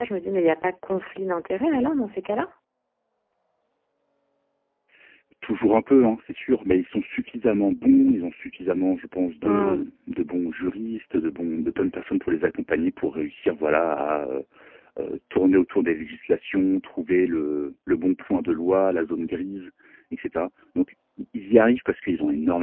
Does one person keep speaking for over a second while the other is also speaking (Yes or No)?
No